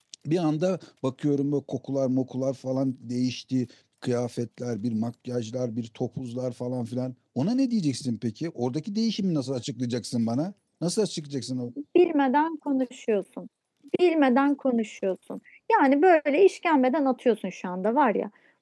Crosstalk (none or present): none